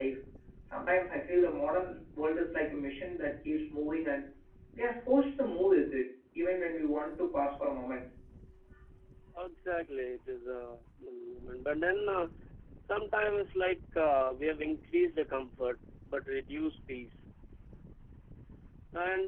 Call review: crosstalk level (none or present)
none